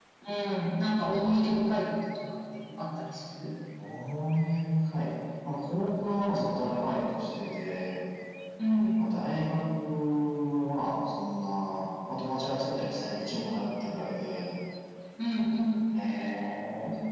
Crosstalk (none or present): none